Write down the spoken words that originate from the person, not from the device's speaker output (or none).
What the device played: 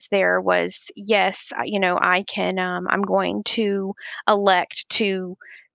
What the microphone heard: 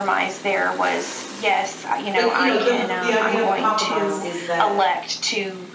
like, you know, the the idea of a compromise is that,